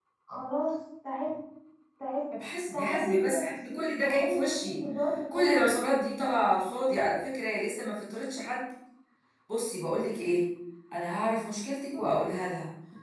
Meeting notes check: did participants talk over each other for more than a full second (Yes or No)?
Yes